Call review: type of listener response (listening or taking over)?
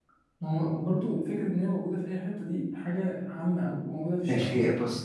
taking over